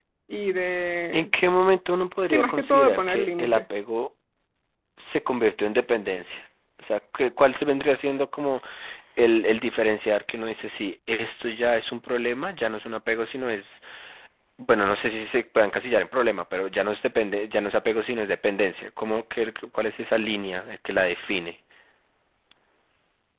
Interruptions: present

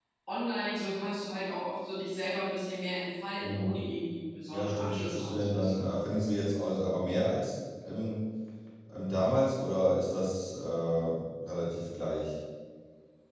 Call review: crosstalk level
present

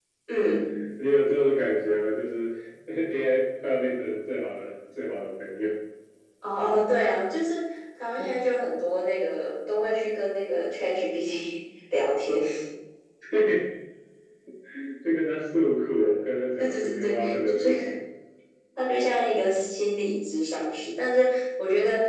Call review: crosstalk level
present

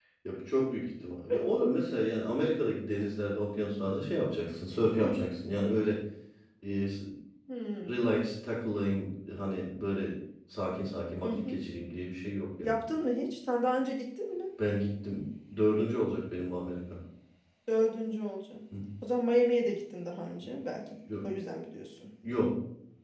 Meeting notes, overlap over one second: none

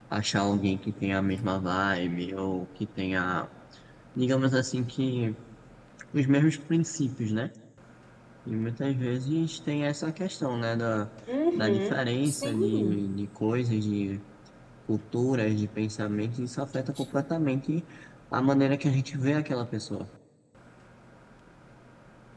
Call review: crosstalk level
present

